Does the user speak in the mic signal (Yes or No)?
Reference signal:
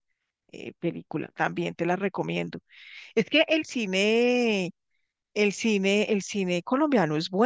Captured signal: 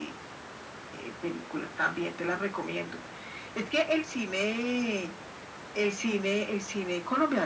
No